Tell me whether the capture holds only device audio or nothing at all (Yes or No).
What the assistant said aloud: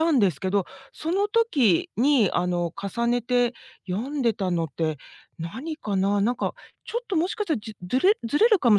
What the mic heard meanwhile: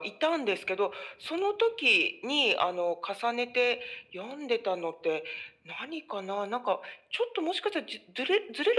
Yes